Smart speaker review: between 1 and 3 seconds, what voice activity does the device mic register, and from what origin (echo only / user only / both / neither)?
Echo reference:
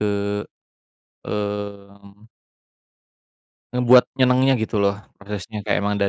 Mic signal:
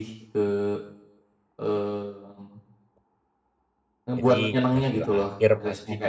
echo only